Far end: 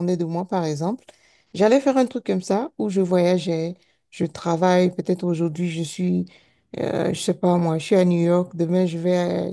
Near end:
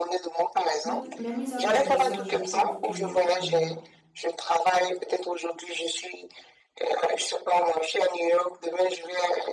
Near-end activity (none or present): present